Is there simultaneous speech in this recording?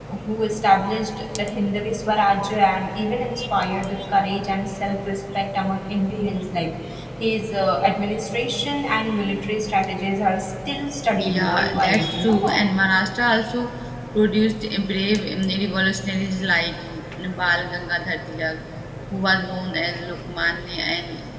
Yes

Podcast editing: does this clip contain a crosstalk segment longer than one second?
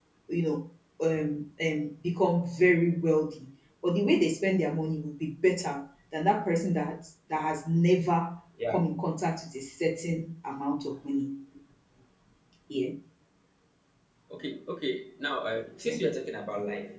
No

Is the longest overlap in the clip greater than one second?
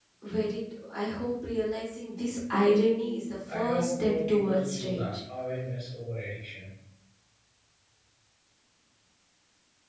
Yes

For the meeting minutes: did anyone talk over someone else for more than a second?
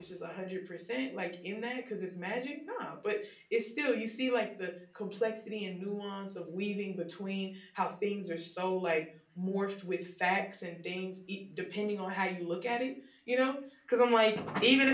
No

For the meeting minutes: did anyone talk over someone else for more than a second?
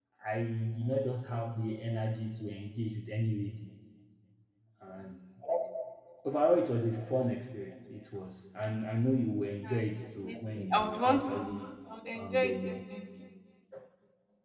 Yes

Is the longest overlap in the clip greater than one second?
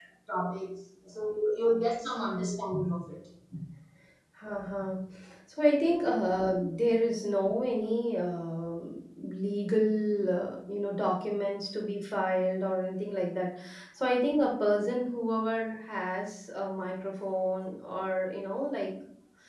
No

